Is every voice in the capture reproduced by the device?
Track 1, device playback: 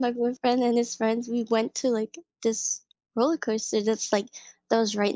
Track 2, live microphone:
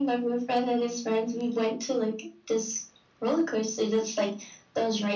Yes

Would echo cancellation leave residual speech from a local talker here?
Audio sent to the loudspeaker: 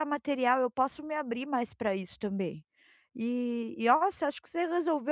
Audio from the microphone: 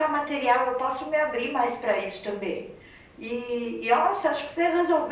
No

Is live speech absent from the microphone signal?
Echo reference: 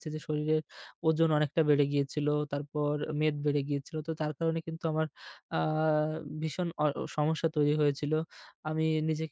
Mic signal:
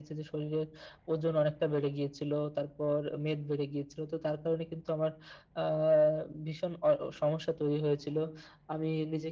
Yes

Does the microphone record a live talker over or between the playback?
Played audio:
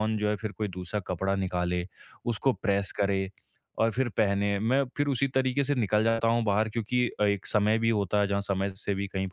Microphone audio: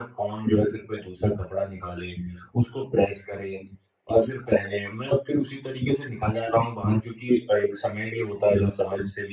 No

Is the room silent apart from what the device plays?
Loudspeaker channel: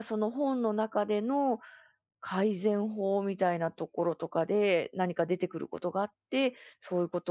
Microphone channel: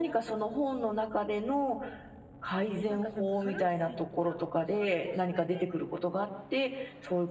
No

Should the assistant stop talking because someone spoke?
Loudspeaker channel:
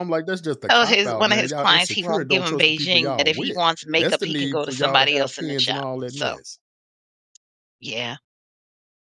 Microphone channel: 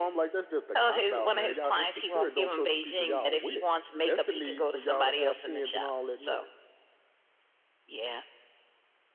No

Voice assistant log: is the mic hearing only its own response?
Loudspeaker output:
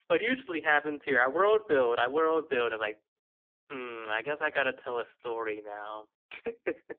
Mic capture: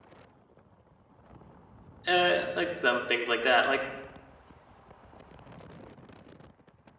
No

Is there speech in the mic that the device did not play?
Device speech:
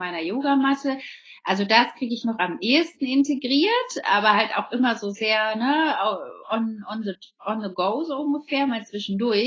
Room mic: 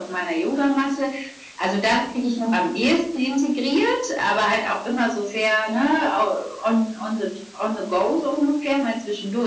No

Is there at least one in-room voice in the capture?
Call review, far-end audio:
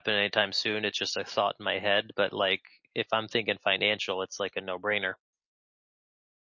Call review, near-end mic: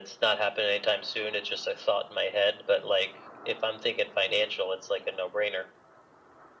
No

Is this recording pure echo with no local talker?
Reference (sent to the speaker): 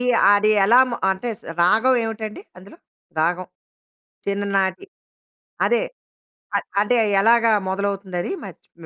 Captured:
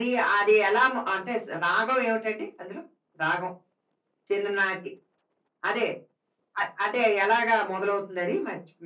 Yes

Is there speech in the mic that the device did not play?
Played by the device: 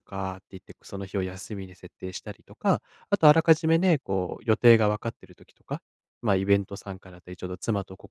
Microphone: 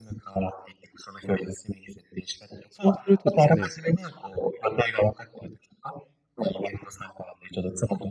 Yes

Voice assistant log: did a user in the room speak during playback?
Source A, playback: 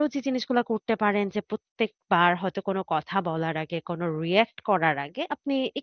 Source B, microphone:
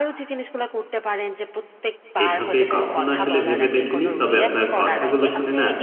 Yes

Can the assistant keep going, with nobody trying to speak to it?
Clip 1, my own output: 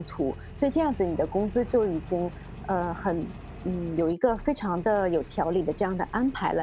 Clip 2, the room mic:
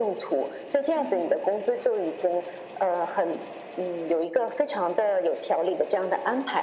No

